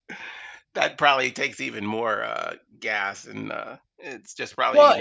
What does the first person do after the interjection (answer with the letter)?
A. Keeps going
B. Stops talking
B